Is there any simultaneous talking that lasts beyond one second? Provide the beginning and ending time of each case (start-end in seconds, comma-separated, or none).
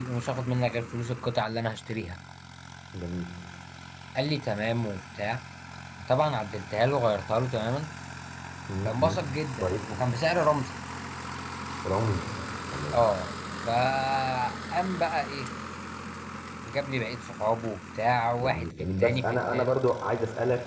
18.4-19.8